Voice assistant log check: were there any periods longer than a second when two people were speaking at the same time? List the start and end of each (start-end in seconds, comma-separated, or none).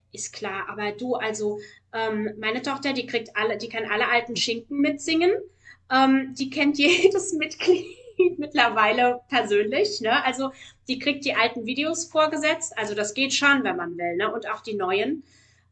none